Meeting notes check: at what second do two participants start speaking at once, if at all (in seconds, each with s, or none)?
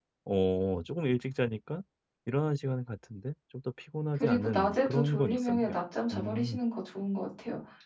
4.2 s